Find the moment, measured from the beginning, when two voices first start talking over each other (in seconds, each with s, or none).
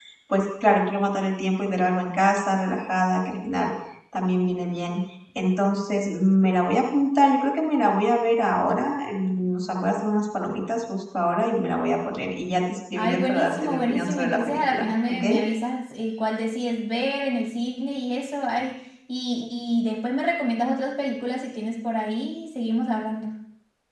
13.0 s